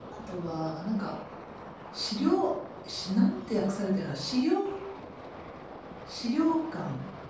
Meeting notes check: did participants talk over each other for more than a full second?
No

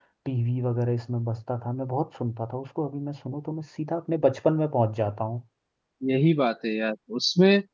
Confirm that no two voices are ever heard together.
Yes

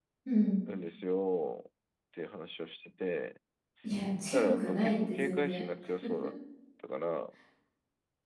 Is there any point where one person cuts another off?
Yes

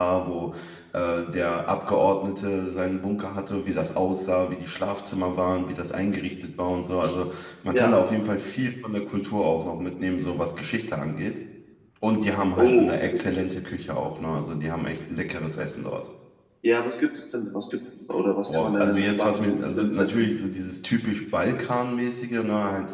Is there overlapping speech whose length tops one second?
Yes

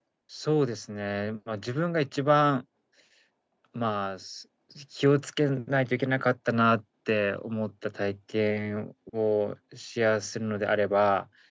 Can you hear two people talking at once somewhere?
No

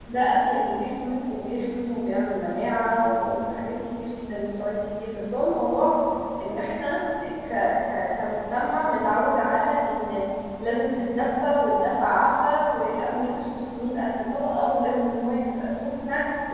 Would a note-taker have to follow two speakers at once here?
No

